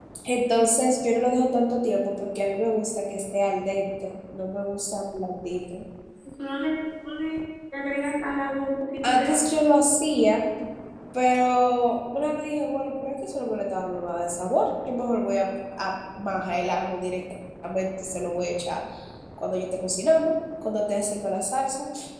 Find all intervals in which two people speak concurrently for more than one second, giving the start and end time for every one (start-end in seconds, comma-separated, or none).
none